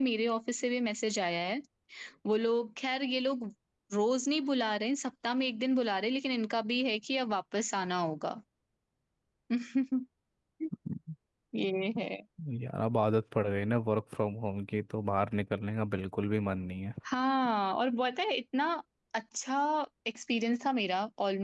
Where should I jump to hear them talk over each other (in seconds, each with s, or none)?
none